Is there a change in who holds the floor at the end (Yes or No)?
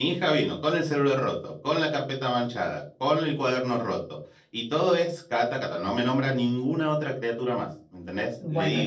Yes